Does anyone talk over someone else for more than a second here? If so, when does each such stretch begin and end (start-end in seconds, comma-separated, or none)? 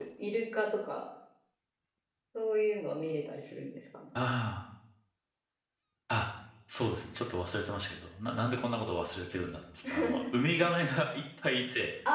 none